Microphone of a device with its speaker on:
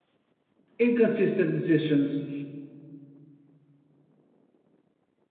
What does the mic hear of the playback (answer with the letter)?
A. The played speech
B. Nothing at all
B